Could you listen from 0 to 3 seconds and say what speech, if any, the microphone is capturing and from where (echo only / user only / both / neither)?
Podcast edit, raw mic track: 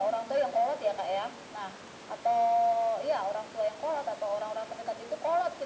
echo only